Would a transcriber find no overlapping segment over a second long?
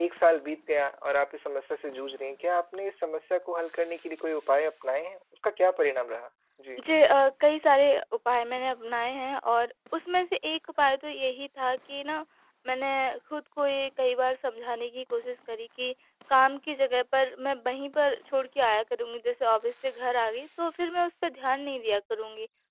Yes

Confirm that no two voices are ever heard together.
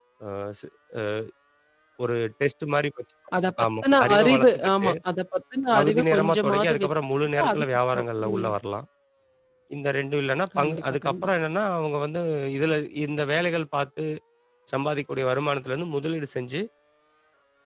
No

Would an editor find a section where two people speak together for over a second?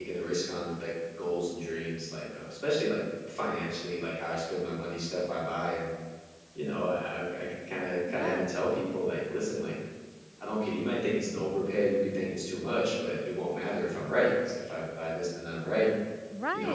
No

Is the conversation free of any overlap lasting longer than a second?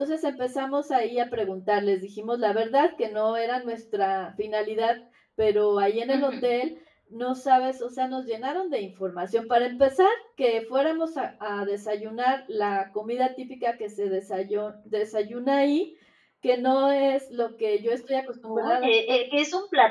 Yes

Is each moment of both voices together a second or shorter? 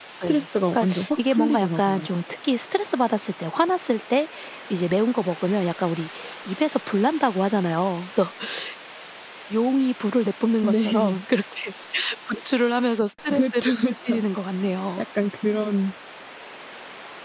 No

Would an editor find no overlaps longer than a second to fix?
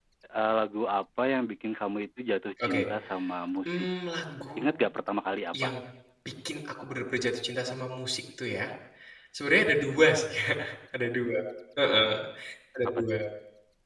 Yes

